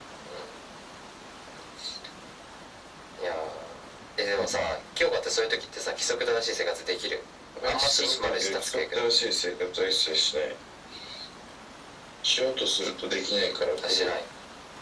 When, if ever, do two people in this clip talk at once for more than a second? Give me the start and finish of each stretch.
7.6-9.0

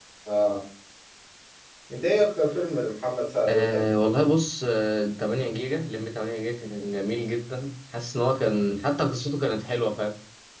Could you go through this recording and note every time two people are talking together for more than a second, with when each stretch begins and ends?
none

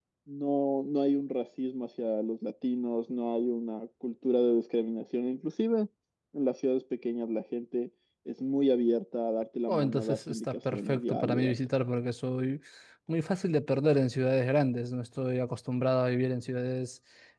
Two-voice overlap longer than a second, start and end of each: 9.7-11.5

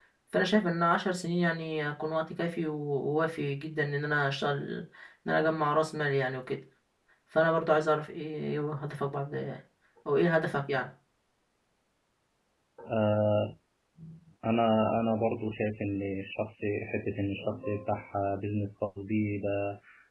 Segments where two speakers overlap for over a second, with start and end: none

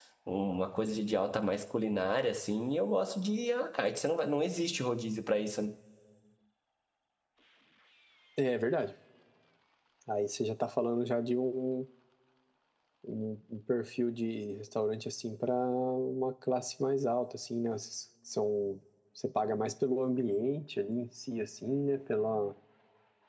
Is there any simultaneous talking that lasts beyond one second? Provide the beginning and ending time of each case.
none

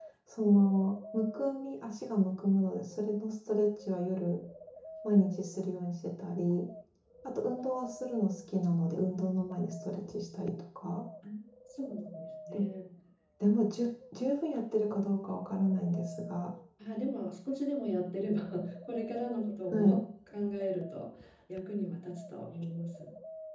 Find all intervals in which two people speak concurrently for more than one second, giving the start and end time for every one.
none

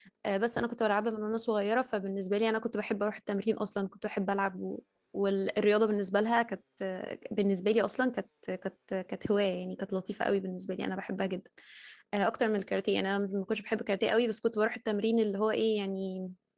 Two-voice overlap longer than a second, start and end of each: none

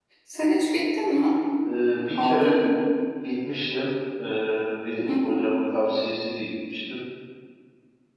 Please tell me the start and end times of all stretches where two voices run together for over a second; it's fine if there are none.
none

